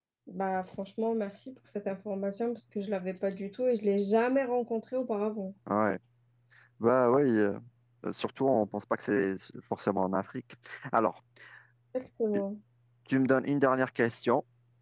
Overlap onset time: none

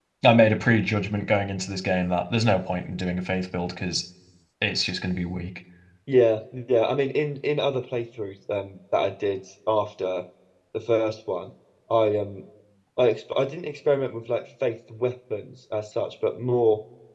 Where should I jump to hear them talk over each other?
none

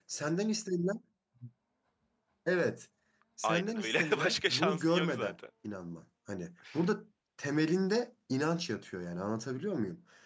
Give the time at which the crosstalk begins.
3.4 s

